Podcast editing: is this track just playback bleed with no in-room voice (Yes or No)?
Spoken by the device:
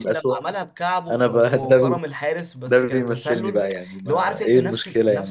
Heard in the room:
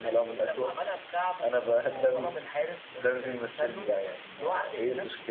Yes